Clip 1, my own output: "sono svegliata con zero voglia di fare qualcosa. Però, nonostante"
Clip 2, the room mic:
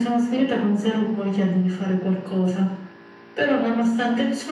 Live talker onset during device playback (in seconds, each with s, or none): none